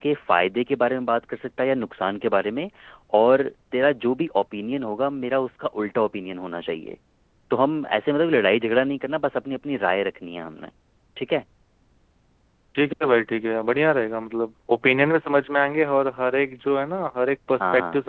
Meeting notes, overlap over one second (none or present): none